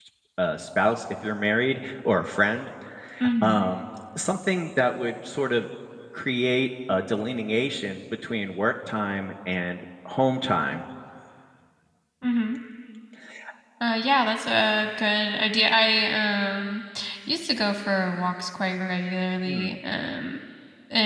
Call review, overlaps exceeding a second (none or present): none